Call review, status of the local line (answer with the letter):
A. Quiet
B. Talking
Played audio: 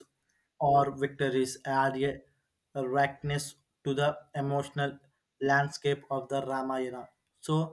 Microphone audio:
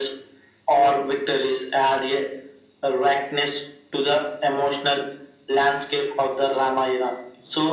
A